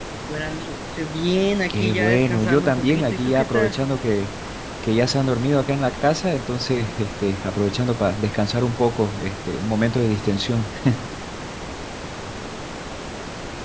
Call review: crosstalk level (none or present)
present